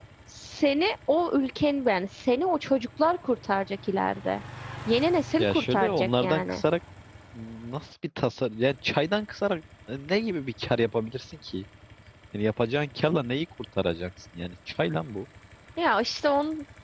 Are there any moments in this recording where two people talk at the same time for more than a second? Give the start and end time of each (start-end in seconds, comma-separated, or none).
5.4-6.6